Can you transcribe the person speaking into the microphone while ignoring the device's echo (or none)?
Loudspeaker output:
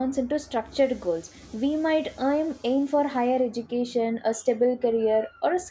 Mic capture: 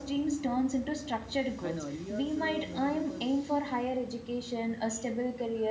and earlier, uh, many people s-